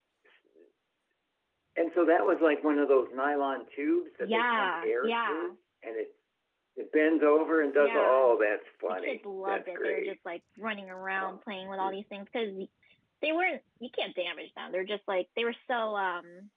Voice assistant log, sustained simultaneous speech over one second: present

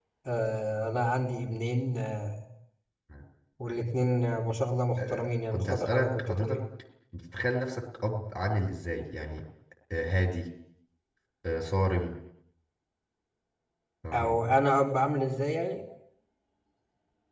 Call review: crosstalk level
present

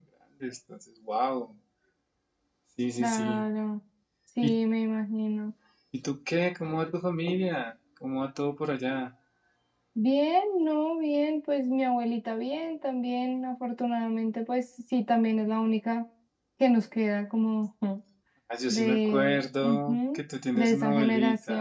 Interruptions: present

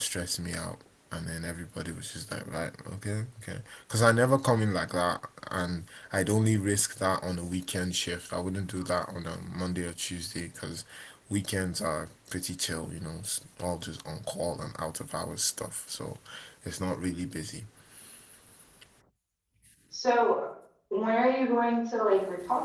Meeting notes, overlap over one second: none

